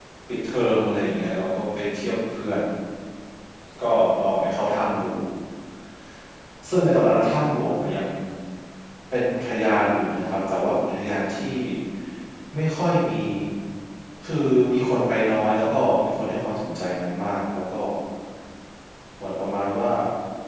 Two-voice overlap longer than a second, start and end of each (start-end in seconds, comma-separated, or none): none